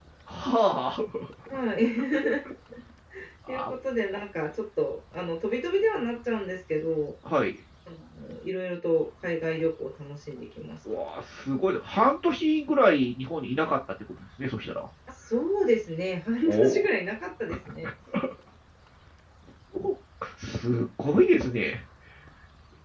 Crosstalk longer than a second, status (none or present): none